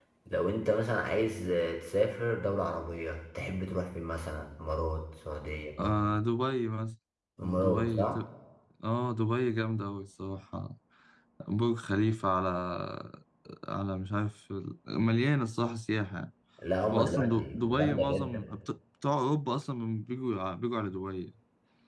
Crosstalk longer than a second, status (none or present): present